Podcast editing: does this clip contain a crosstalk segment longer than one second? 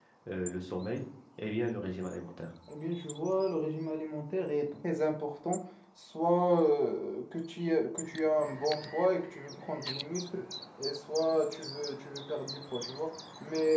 No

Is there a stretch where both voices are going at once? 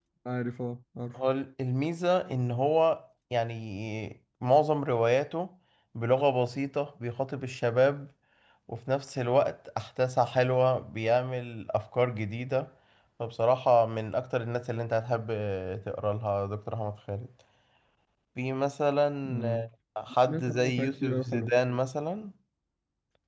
Yes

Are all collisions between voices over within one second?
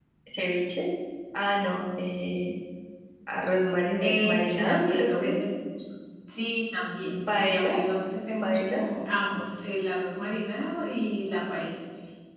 No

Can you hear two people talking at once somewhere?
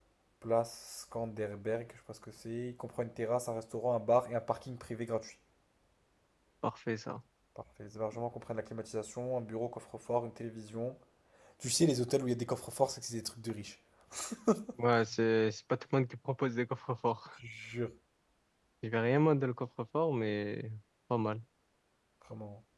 No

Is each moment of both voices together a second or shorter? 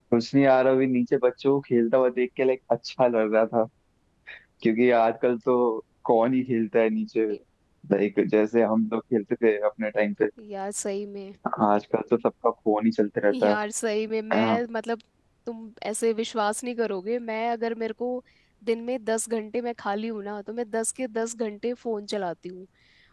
Yes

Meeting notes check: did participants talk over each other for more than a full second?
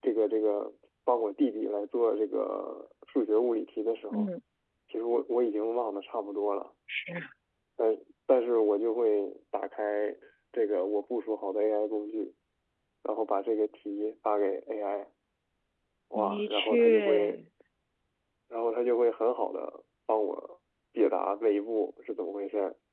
Yes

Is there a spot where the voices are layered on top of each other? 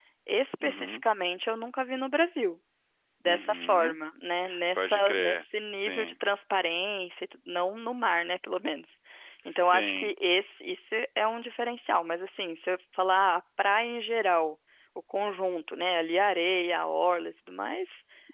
Yes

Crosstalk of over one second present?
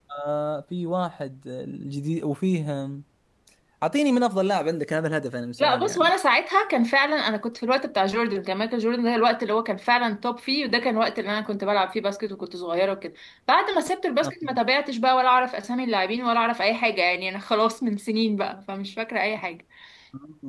No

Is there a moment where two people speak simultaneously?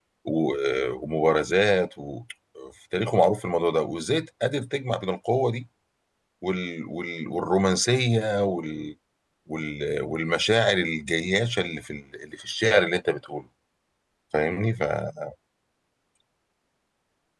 No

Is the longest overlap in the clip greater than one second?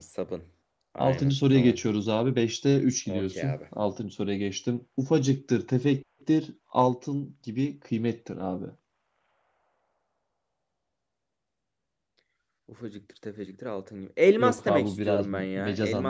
Yes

